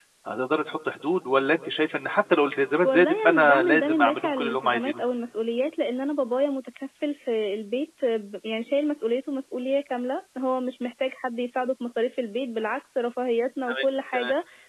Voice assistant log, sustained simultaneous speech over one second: present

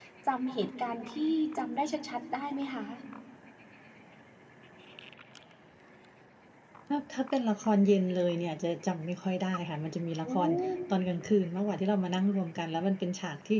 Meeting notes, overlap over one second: none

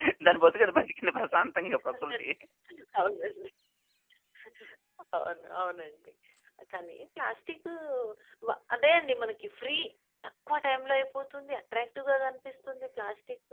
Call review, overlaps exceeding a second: none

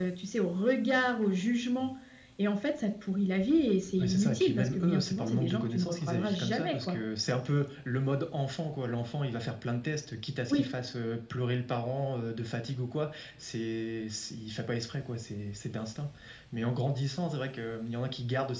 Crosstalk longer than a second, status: present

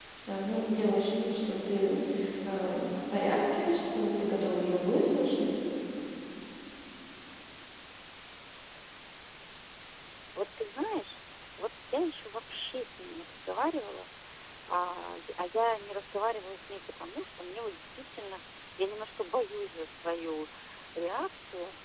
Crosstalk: none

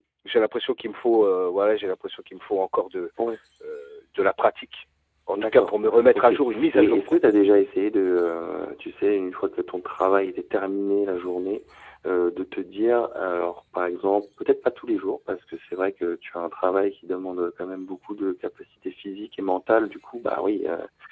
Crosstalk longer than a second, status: present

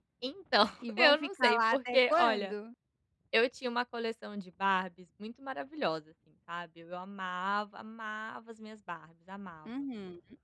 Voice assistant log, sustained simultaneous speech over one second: present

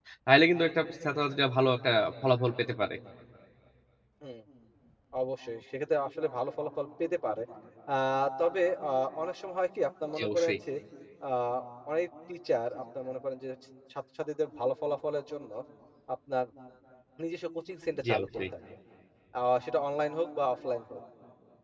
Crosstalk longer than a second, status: none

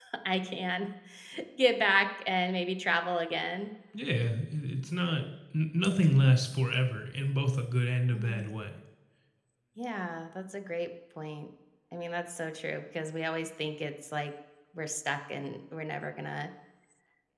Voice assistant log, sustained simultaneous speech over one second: none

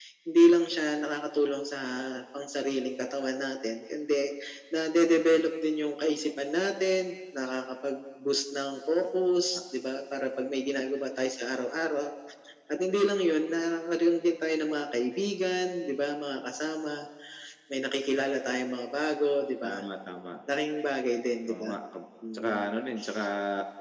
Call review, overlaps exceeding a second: none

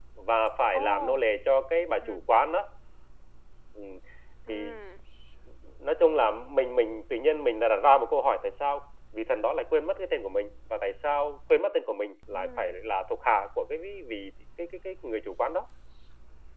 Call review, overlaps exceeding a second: none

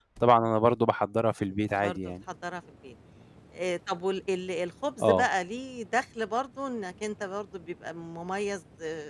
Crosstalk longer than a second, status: none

